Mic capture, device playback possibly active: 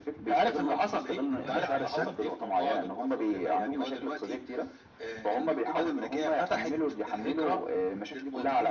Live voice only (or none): دلوقتي علشان